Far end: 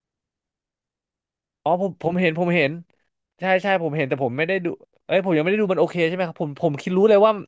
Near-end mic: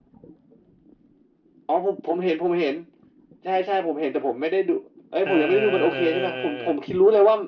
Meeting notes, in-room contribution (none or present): present